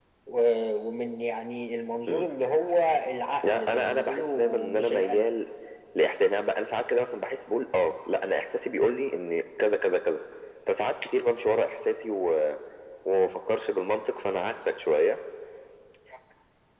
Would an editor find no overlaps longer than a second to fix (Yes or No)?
No